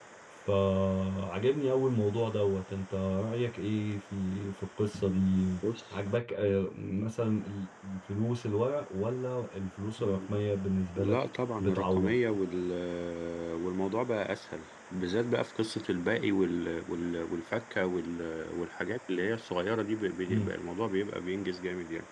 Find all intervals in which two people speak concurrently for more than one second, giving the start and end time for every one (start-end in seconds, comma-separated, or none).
none